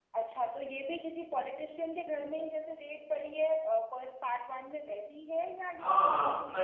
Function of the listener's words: taking over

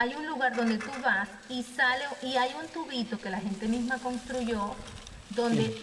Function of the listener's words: listening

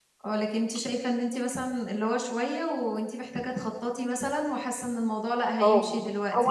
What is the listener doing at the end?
taking over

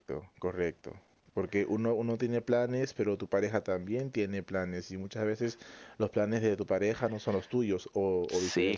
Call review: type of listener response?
taking over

